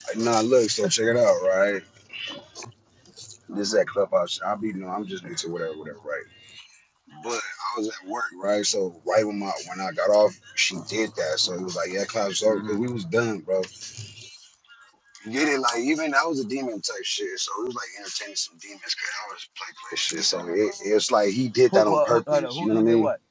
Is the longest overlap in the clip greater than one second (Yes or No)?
Yes